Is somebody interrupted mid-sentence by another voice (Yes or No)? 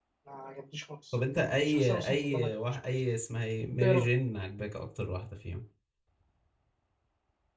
Yes